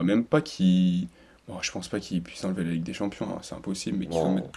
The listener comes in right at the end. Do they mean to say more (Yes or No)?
No